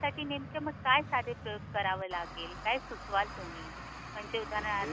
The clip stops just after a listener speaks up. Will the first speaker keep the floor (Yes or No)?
Yes